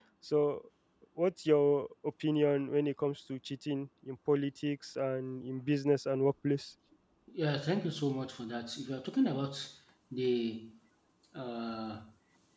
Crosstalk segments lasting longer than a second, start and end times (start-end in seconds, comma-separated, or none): none